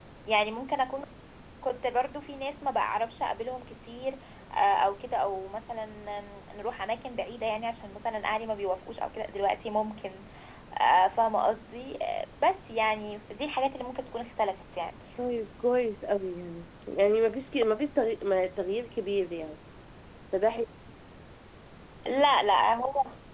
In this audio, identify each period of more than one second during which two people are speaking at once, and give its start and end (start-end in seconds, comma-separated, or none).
none